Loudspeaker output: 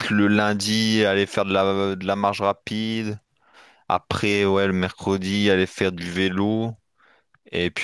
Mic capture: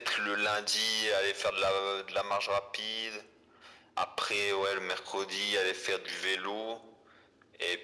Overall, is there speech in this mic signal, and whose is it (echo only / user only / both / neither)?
echo only